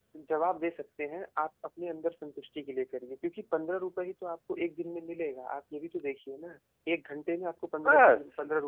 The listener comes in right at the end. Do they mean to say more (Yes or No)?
No